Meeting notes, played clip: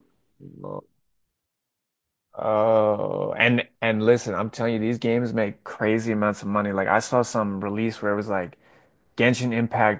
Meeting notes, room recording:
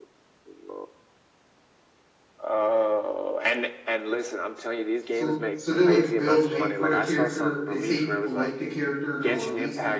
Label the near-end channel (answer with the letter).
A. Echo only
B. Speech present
B